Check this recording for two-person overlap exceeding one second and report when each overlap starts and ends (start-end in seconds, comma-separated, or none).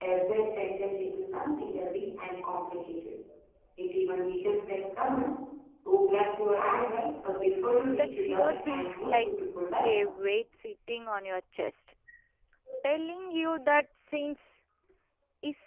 7.9-9.3